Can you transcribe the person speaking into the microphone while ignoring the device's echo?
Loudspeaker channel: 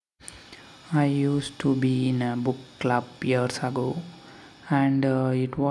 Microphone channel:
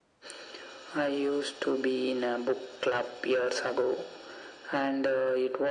none

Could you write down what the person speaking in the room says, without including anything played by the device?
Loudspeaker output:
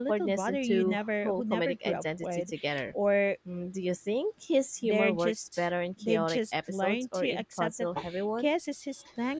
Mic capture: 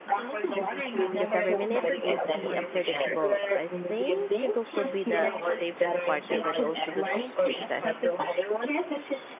because every minute would be unpredictable. I think Jungkook would be the safest partner, but also the strictest.

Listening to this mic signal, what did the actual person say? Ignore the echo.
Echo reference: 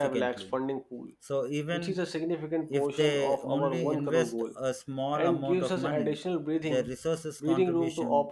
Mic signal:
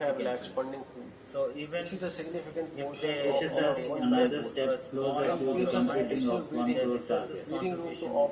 pushes us another step closer to the completing of 1 crore target.

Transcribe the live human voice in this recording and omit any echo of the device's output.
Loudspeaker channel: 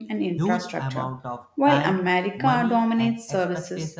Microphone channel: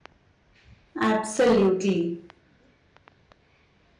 Absolutely.

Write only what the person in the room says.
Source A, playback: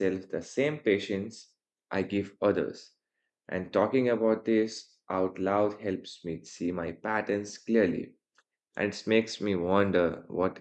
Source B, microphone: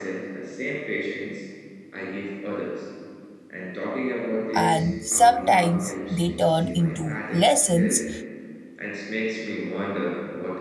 And sometimes they turn into lessons

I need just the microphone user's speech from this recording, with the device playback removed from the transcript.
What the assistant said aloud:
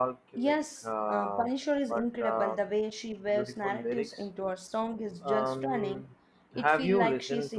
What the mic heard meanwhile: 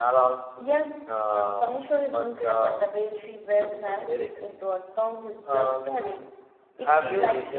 none

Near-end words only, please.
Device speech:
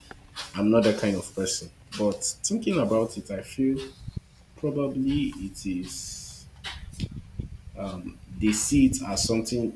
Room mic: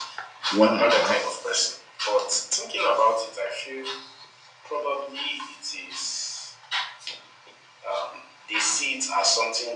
what I have

